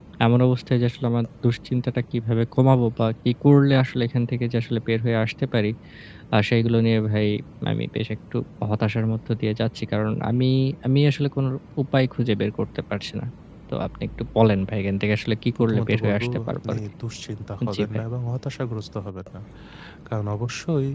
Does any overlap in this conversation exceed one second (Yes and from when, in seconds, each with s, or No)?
Yes, from 15.6 s